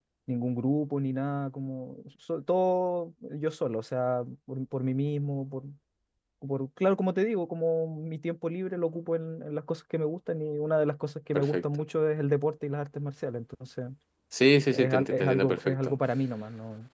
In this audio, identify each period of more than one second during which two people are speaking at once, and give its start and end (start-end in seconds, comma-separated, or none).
14.7-16.0